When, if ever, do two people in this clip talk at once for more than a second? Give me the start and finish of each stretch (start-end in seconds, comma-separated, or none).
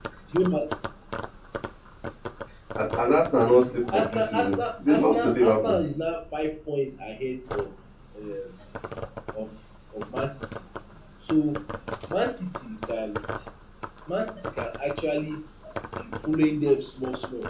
3.9-5.8